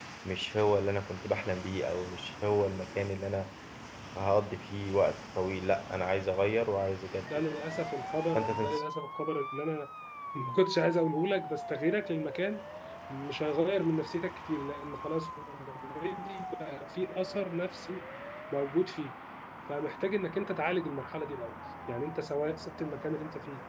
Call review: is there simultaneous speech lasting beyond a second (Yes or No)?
No